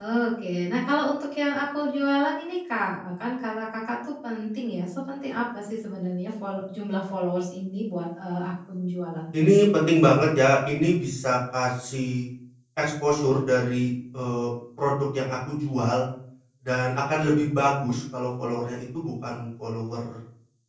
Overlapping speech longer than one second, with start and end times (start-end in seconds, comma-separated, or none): none